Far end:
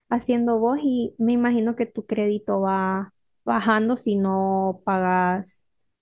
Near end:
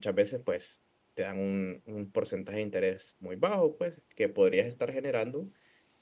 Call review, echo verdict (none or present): none